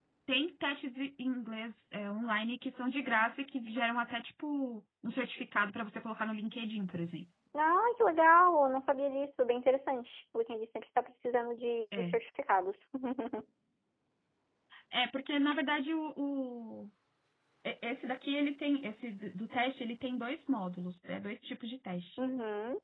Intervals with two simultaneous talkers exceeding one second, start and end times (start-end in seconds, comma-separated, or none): none